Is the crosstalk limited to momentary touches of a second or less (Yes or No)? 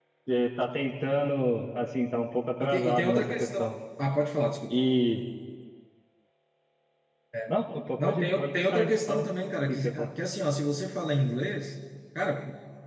No